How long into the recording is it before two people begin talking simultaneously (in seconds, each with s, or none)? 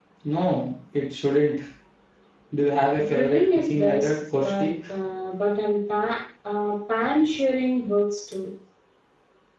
3.0 s